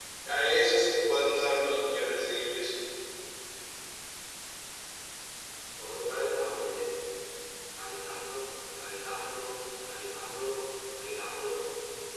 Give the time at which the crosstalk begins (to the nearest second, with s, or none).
none